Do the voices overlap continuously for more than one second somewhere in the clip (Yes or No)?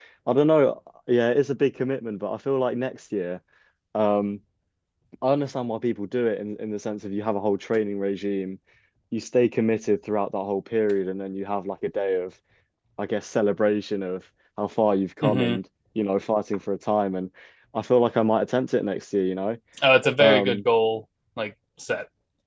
No